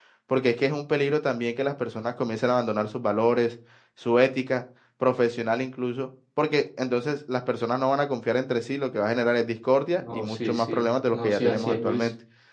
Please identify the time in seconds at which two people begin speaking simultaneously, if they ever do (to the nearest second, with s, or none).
10 s